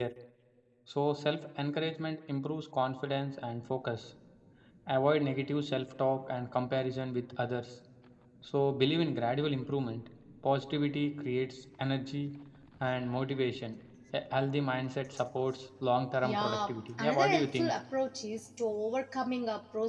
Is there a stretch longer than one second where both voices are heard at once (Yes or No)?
Yes